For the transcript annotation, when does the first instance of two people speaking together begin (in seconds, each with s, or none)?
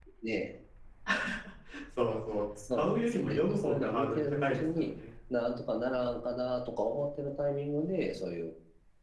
2.7 s